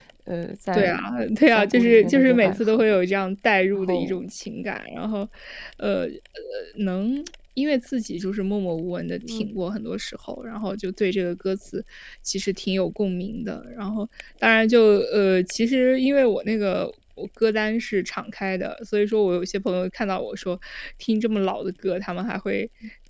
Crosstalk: present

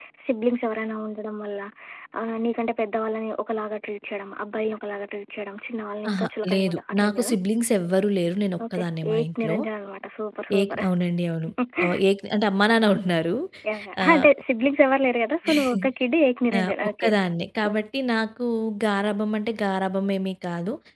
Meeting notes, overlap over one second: present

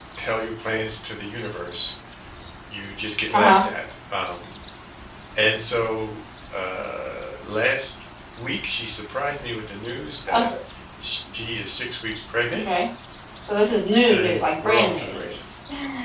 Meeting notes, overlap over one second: present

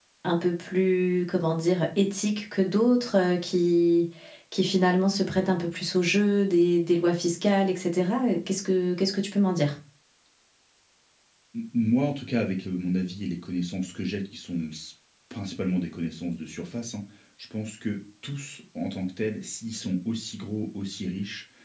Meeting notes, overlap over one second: none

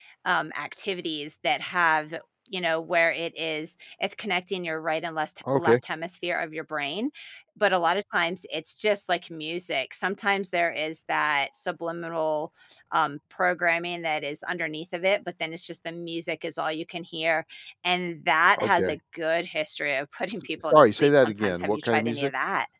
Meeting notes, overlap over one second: present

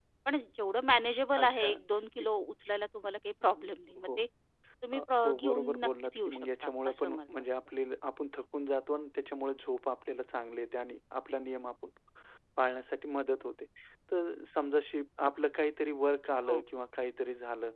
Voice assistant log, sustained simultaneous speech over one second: present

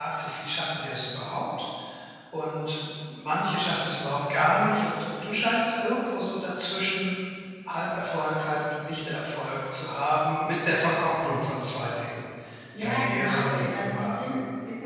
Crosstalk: present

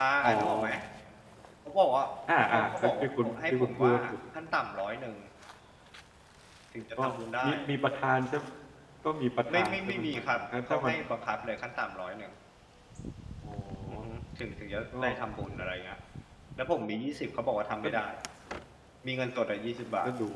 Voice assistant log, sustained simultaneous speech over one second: present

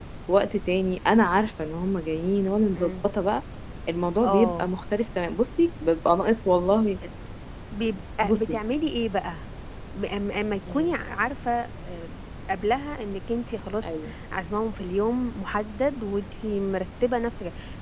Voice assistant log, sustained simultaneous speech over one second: none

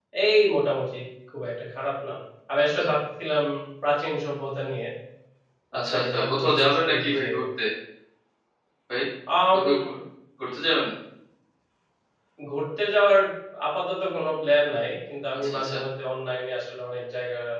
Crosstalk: present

